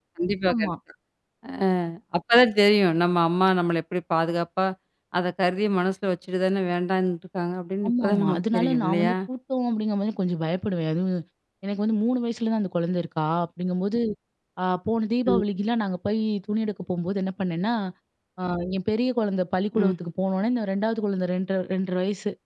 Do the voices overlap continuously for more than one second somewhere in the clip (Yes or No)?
Yes